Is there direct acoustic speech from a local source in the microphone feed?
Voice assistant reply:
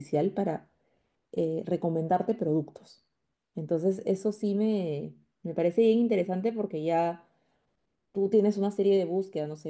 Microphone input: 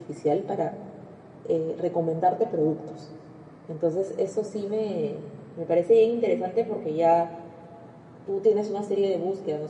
No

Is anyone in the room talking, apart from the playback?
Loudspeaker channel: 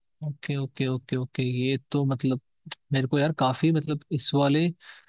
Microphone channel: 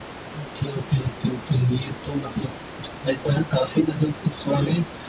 No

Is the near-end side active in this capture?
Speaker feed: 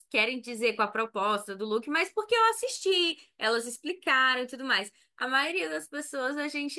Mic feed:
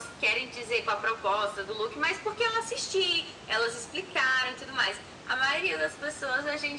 No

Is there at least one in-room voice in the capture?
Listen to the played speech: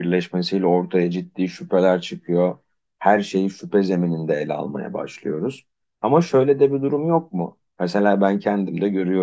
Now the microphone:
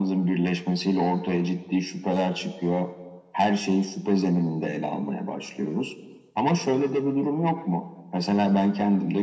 No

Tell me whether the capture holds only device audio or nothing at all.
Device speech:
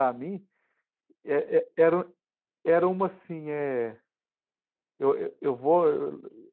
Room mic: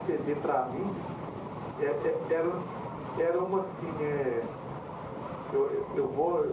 Yes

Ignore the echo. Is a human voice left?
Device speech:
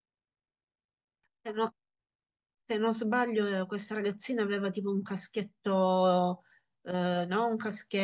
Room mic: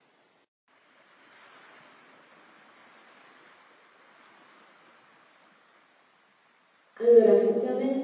Yes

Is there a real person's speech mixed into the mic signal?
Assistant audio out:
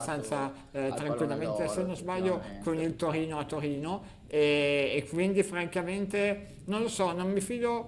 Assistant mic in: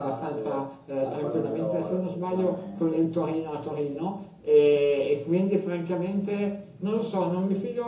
No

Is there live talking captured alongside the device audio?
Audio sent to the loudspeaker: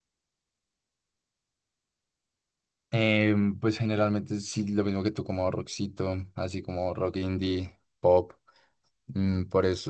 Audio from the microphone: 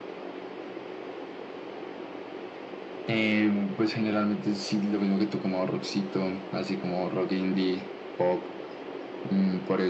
No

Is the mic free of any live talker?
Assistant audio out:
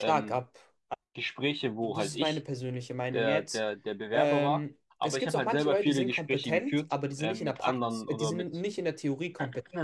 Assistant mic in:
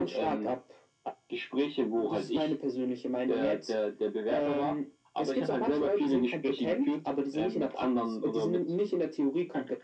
Yes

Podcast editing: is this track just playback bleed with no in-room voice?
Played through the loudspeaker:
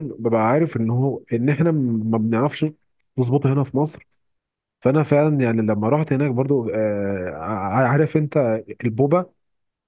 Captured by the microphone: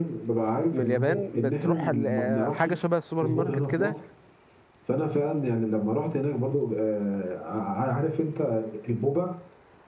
No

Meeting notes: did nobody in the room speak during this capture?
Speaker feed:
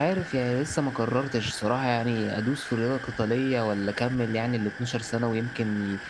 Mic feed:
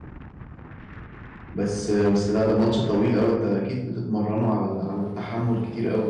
No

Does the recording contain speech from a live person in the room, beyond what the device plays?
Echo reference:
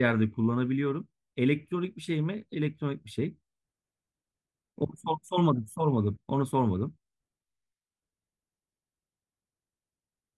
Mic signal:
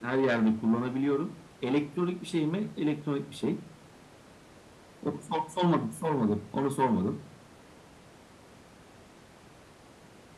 No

